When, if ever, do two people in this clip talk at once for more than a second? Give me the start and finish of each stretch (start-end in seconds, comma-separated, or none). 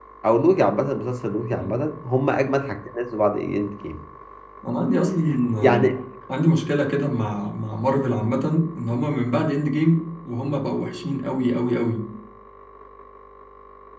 none